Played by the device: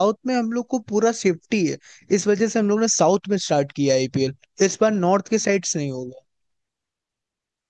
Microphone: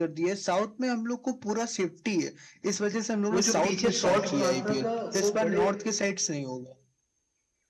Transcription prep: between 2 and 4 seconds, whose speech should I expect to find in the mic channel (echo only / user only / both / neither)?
both